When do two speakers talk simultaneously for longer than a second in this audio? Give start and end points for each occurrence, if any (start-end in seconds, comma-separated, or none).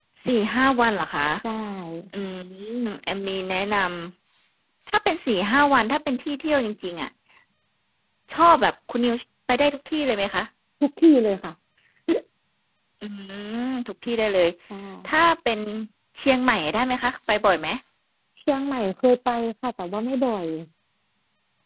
none